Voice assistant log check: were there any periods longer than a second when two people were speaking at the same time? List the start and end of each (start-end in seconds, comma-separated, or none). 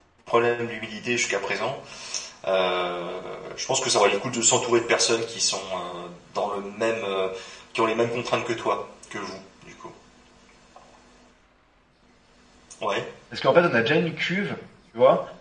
none